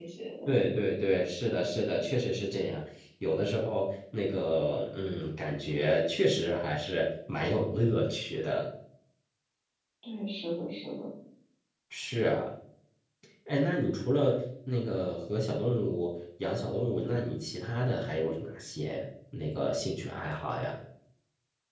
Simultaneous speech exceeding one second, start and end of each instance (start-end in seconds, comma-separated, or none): none